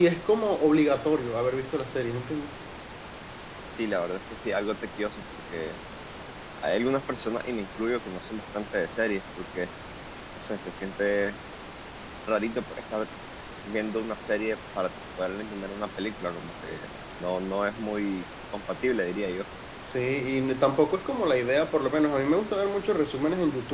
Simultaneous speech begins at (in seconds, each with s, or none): none